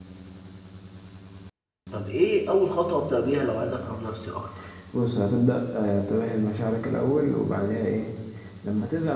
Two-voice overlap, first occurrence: none

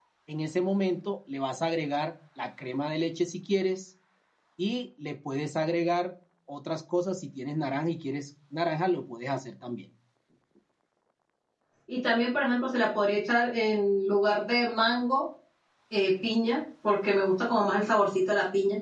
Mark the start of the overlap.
none

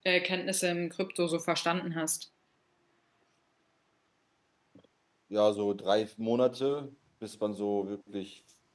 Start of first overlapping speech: none

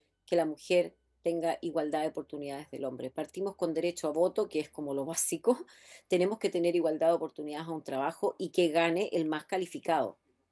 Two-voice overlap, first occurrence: none

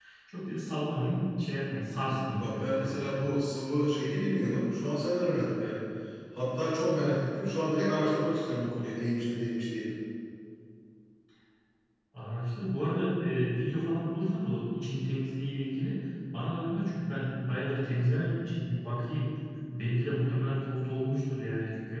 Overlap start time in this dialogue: 2 s

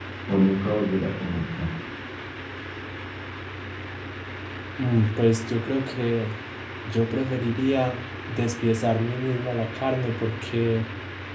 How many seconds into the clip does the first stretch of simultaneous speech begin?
none

